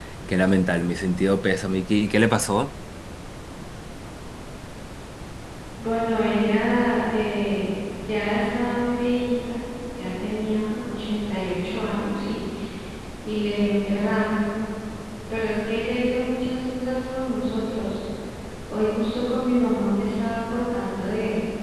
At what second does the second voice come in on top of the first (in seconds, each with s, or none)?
none